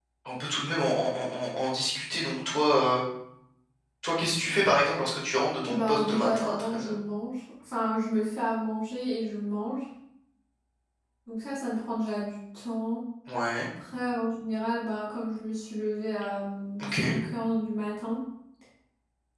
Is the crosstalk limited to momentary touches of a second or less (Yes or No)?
No